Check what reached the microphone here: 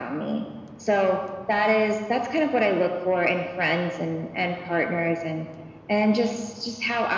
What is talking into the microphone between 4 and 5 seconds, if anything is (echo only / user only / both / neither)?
echo only